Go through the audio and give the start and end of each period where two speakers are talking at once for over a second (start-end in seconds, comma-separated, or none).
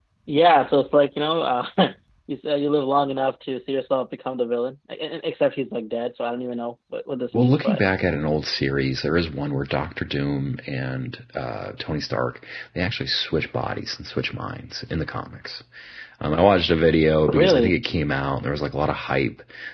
none